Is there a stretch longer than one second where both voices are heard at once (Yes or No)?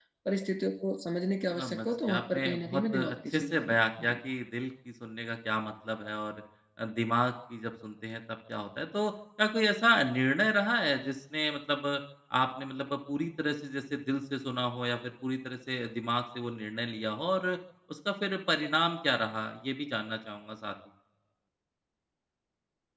Yes